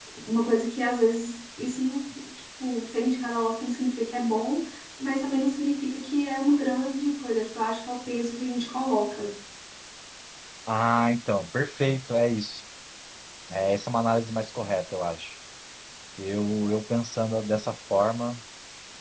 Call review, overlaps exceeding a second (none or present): none